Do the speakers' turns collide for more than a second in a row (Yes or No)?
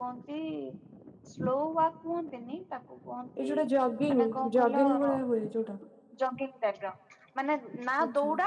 Yes